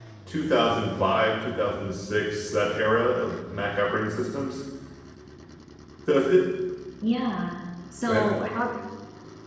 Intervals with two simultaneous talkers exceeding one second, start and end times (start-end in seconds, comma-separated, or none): none